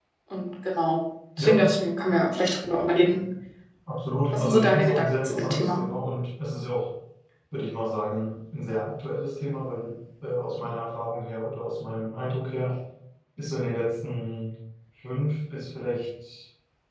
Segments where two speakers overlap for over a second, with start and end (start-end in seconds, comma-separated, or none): 4.3-5.9